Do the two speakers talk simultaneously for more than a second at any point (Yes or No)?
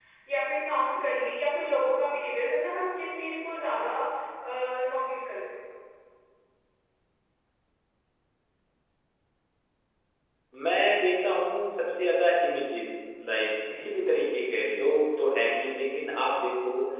No